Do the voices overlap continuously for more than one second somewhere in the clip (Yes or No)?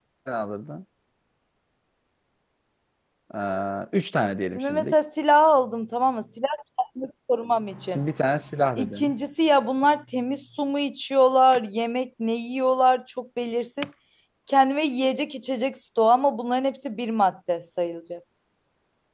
No